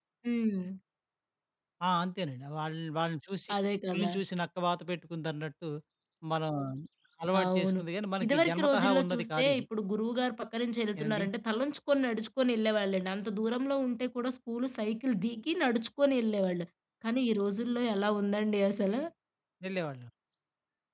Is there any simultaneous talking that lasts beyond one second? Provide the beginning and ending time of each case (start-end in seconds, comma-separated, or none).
8.2-9.6